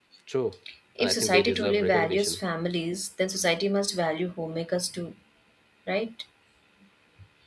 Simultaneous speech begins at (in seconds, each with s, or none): 1.0 s